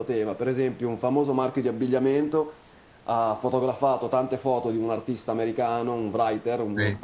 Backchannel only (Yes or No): Yes